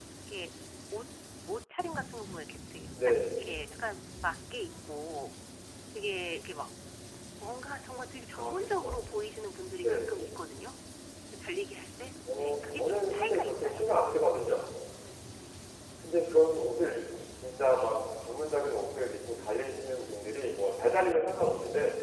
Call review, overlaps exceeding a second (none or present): present